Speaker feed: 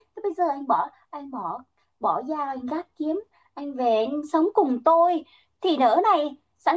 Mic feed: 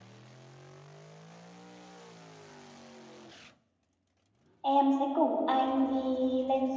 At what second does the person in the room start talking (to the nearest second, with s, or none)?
5 s